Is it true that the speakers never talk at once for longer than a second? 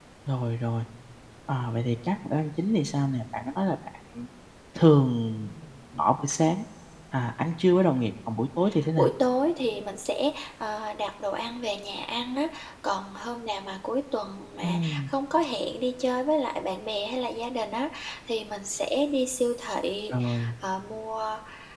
Yes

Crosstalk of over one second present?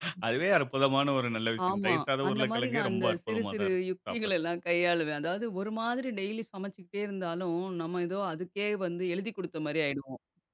Yes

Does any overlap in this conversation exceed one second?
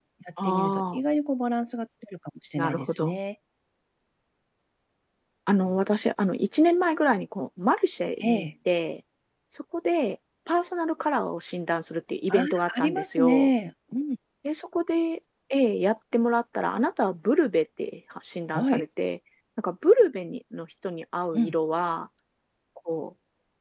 Yes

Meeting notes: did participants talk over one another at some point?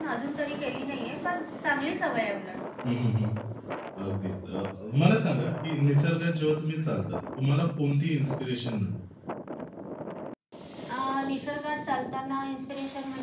No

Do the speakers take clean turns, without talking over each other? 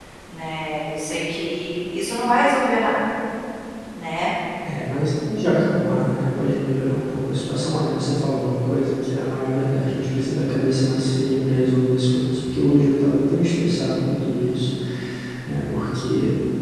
Yes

